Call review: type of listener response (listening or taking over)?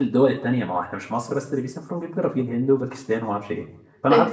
listening